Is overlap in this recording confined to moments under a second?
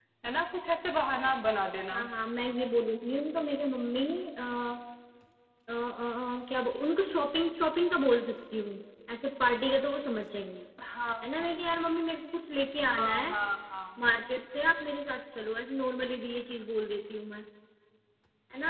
Yes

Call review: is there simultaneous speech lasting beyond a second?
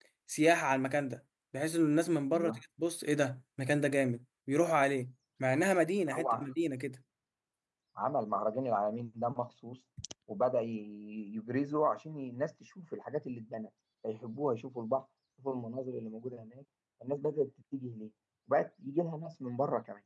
No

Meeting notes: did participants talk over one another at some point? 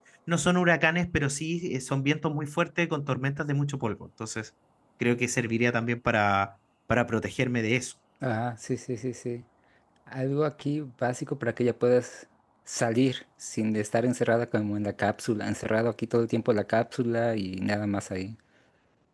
No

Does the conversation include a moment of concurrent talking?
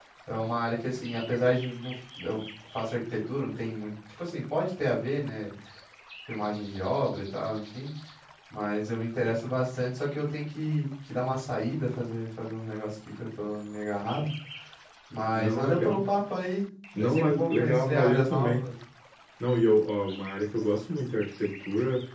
Yes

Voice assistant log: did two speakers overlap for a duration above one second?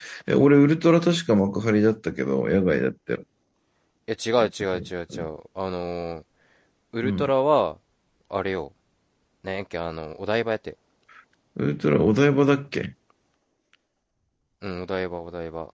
No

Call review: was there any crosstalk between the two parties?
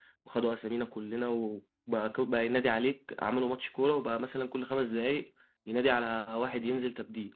No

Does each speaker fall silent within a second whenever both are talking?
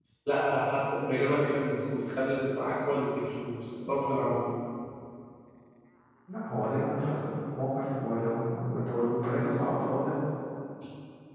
Yes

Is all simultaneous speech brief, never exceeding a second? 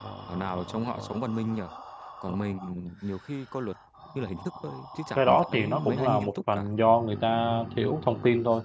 No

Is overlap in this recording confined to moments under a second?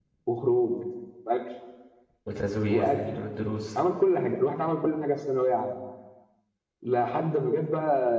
Yes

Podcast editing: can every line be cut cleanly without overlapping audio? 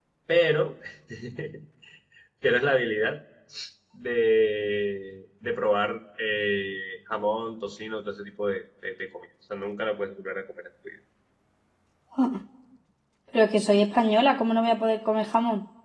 Yes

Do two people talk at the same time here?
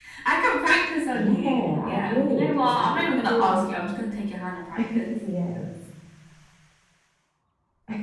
Yes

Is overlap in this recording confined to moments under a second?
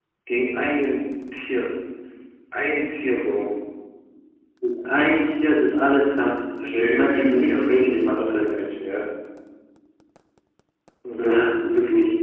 No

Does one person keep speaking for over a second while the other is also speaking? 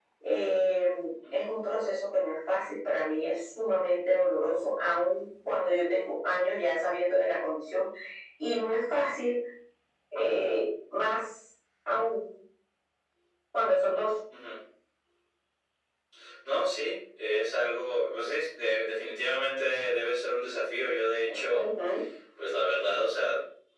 No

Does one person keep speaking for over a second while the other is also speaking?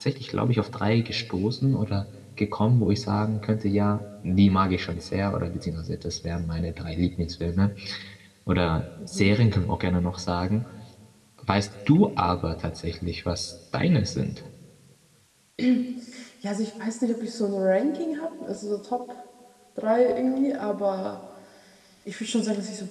No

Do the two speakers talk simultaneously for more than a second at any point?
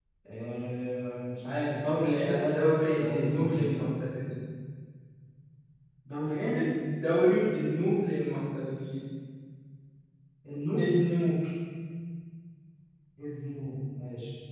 Yes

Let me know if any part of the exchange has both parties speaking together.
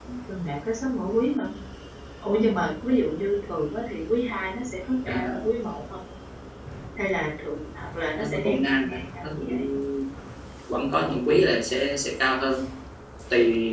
Yes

